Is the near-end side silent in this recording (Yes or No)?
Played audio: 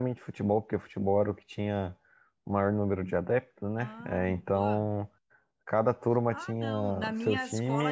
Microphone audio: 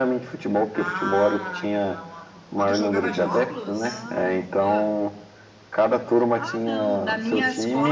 No